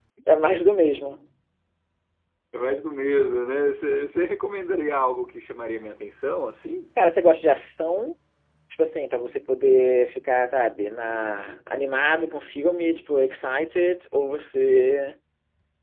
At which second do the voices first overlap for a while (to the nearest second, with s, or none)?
none